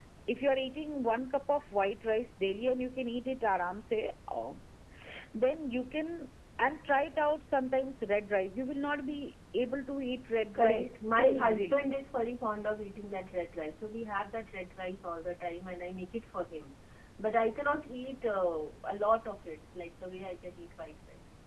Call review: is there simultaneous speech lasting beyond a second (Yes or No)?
Yes